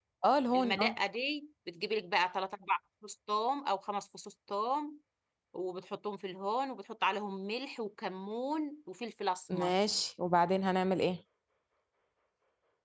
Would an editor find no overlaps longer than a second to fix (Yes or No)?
Yes